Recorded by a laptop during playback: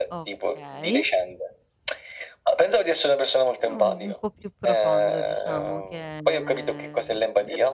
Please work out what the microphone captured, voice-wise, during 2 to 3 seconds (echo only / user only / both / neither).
echo only